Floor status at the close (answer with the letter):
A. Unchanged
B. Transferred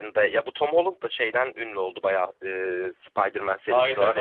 B